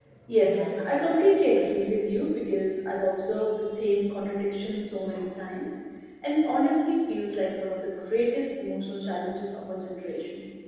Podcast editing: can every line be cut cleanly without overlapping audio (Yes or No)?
No